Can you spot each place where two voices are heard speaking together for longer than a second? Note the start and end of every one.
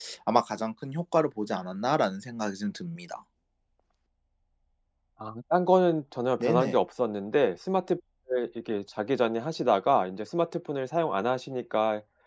none

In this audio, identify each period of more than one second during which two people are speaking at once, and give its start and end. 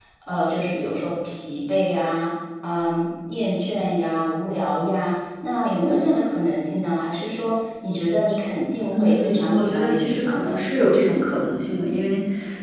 8.9-10.6

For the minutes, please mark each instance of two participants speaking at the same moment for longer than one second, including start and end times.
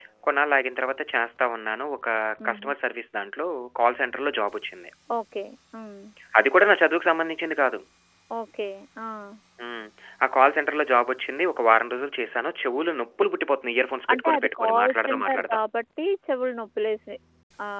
14.1-15.6

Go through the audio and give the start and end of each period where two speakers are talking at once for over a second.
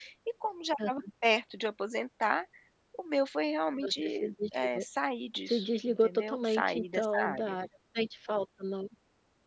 5.5-7.6

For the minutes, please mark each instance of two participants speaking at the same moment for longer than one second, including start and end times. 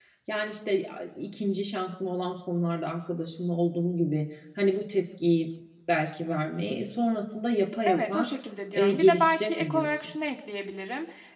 8.7-10.1

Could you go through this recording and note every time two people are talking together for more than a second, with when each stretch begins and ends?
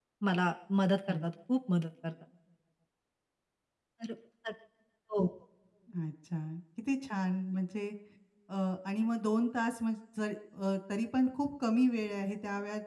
none

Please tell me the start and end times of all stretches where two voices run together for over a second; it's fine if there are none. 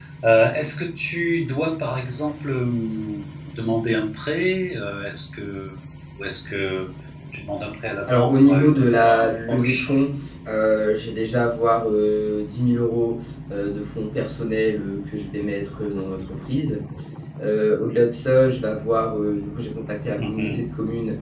8.1-9.9

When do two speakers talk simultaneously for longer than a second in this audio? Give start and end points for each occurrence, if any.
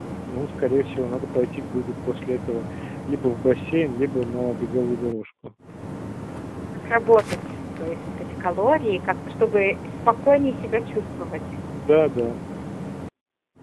none

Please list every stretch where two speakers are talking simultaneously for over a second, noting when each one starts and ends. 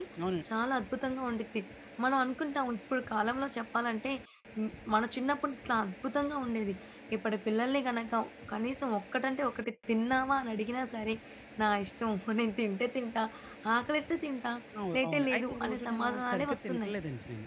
14.9-16.9

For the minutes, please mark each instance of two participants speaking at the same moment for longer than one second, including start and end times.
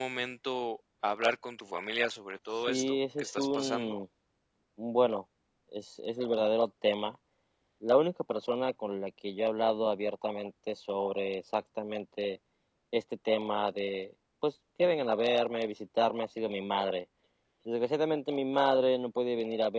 2.6-4.0

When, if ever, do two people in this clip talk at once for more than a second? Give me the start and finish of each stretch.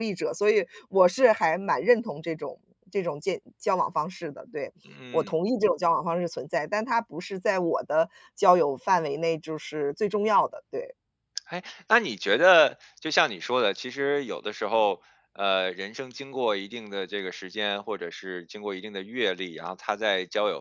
none

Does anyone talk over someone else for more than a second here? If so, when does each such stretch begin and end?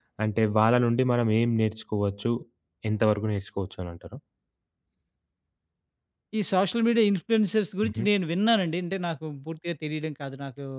none

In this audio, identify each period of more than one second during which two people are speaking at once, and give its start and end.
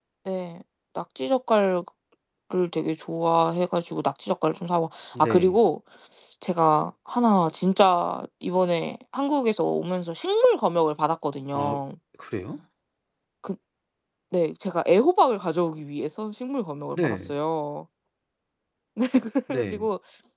none

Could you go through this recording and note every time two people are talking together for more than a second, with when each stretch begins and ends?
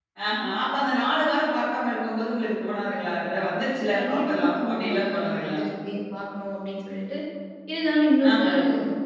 3.9-5.6

